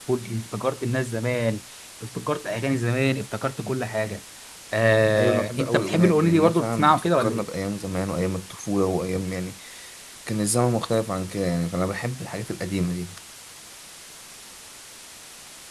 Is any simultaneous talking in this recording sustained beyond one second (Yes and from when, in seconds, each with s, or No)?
Yes, from 5.2 s